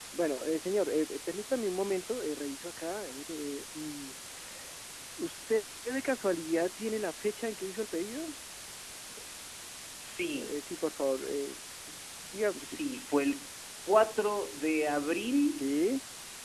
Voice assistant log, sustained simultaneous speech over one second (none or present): none